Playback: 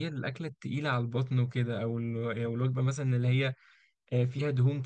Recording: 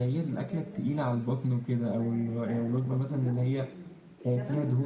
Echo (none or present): present